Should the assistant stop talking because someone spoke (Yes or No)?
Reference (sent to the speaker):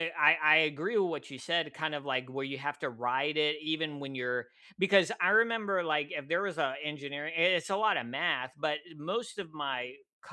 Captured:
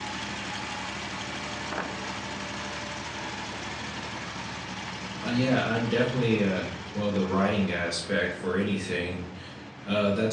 Yes